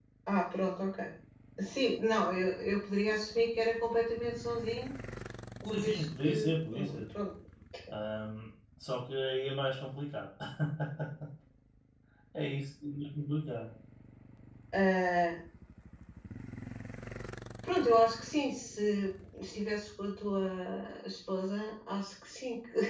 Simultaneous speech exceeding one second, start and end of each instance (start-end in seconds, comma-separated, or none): 5.7-7.0